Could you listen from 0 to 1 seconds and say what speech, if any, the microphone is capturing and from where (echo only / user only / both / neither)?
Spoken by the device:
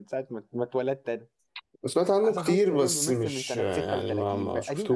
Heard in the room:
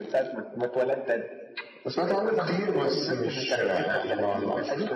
echo only